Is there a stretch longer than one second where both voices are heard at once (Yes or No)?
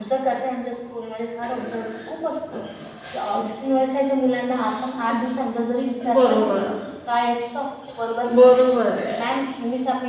No